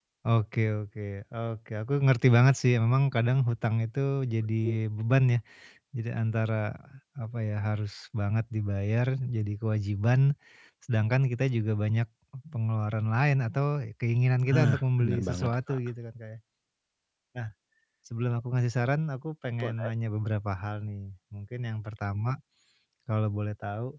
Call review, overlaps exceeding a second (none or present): present